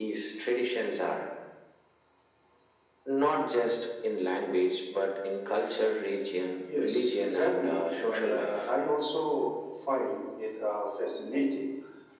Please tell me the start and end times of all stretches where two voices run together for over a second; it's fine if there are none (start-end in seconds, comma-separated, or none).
6.8-8.7